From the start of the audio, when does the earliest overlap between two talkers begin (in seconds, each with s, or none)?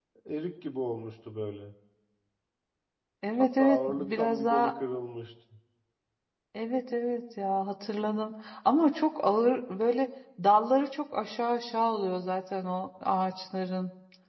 3.4 s